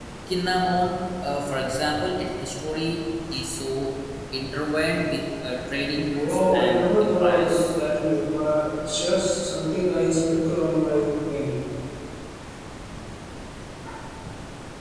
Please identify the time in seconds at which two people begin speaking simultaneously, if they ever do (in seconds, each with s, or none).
6.0 s